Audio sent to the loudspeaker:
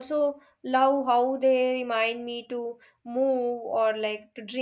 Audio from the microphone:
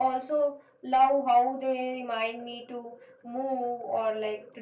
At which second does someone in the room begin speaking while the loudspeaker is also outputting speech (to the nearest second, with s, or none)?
none